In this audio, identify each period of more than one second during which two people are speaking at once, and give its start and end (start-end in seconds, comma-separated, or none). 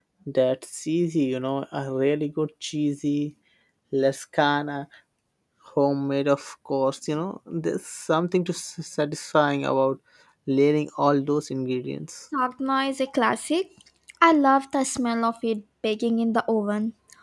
none